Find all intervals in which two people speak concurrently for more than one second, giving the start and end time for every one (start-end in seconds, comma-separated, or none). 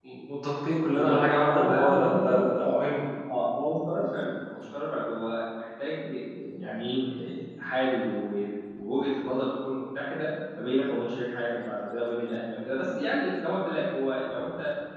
0.9-2.8